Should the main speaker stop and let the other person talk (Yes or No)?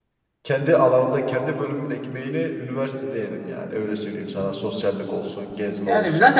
Yes